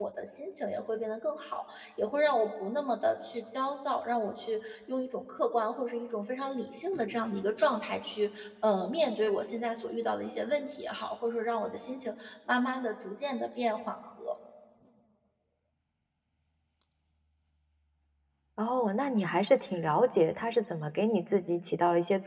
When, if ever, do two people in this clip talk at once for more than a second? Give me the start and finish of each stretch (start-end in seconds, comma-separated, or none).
none